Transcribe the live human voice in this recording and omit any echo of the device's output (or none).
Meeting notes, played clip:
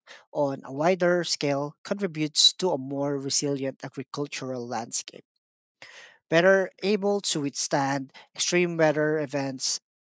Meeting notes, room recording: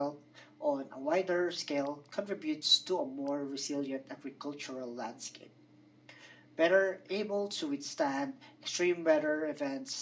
none